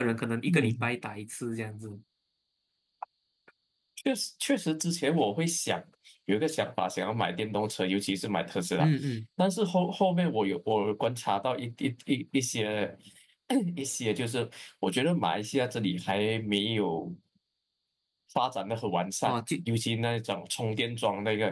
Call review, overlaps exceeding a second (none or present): none